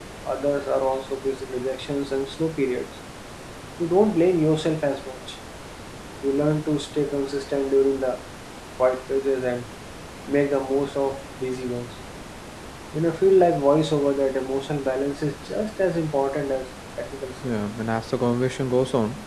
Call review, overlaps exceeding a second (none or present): none